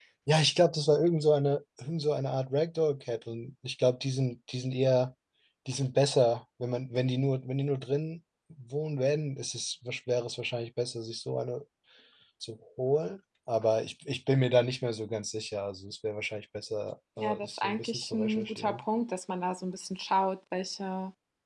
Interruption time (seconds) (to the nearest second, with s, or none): 17 s